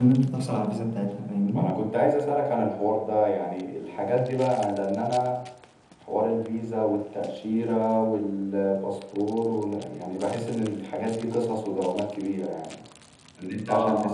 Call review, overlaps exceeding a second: none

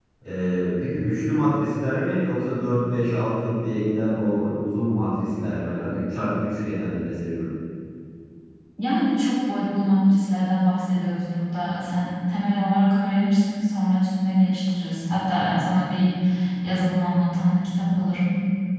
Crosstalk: none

